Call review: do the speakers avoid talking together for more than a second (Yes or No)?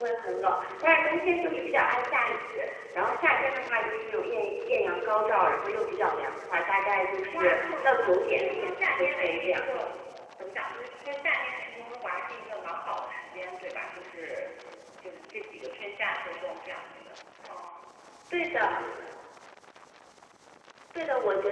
No